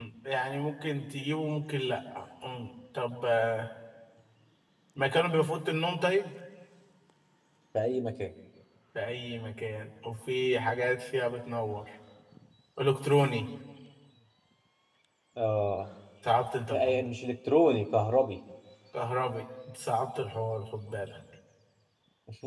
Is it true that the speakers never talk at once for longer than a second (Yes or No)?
Yes